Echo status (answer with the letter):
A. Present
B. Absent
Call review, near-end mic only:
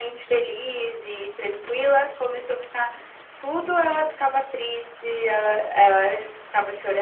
A